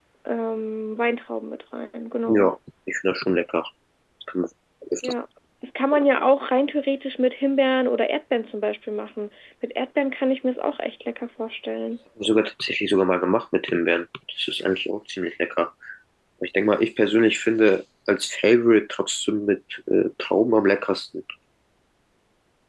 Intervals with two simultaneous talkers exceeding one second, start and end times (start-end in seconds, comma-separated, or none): none